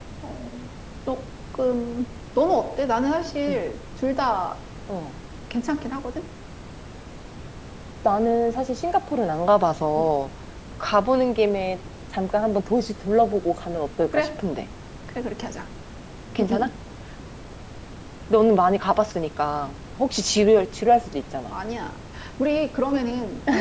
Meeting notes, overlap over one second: none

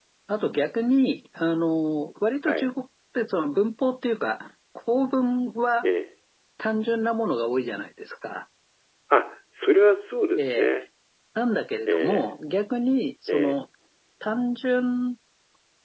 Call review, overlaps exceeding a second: none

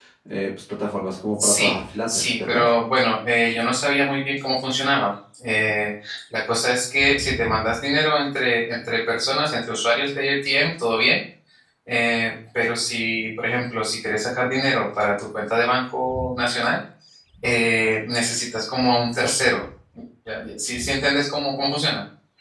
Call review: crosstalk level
present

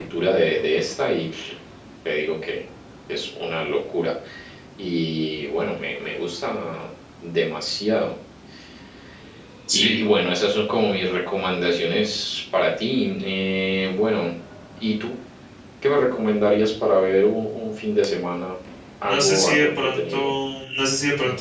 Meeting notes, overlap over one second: present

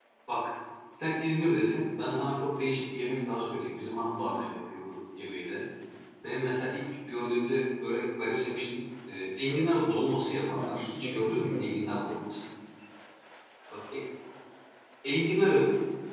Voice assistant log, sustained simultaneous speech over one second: present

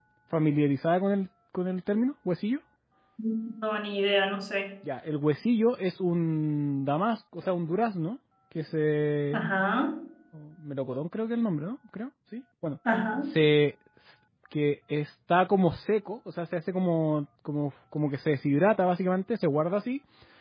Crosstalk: none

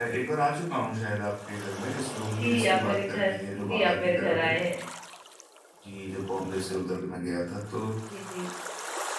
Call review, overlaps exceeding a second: present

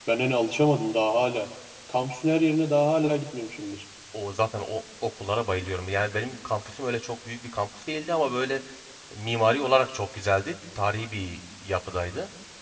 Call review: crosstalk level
none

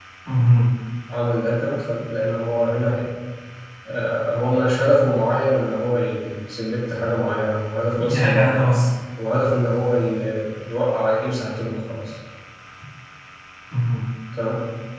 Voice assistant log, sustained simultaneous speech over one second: none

